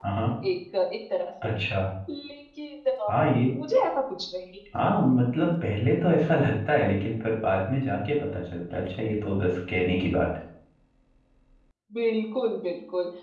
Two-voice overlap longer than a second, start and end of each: none

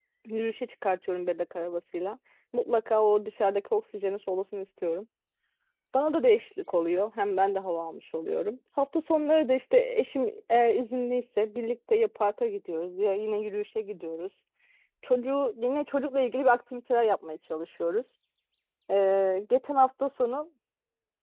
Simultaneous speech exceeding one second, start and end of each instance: none

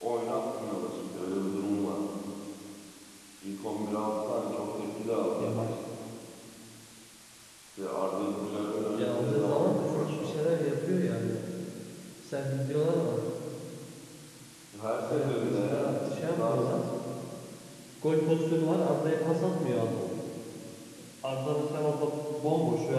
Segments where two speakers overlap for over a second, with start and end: 8.9-10.4, 15.1-16.8

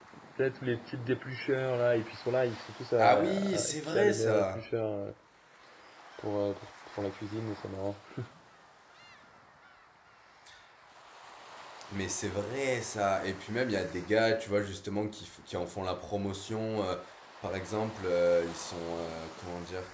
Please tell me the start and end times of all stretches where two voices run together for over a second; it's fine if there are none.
3.0-4.6

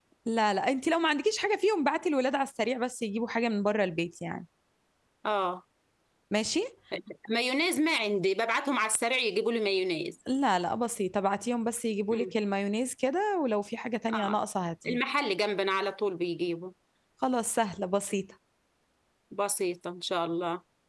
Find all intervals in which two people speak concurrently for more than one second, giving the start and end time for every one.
none

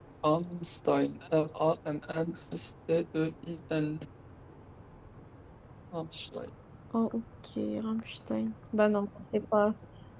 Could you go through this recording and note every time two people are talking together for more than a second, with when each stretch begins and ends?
none

